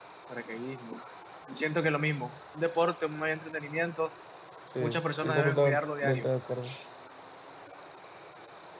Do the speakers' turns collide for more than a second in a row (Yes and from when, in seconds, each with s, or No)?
Yes, from 4.8 s